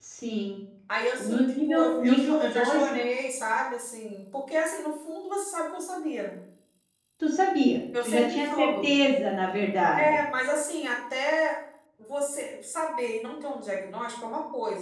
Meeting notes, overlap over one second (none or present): present